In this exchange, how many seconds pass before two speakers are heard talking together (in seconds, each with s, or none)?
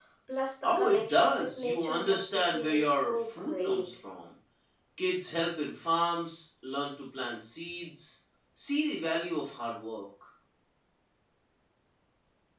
0.6 s